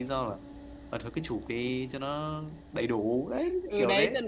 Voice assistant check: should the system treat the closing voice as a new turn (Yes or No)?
Yes